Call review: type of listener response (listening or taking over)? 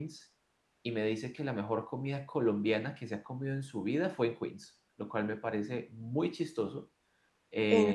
listening